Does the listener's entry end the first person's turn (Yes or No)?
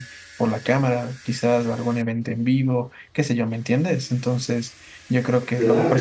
No